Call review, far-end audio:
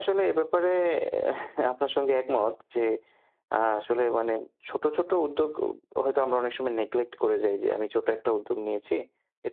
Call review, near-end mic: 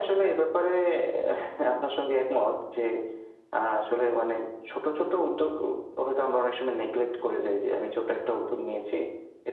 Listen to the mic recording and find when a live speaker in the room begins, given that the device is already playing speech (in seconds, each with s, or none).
none